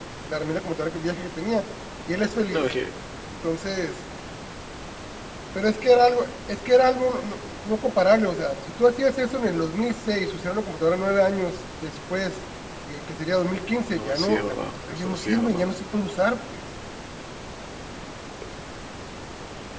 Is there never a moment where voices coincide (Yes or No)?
No